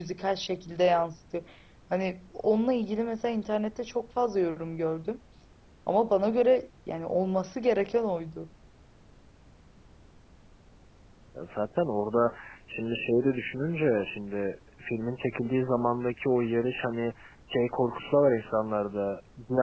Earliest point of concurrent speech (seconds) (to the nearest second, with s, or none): none